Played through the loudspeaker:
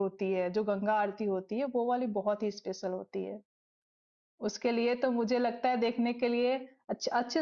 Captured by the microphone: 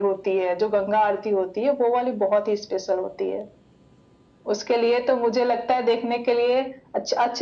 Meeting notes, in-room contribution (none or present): none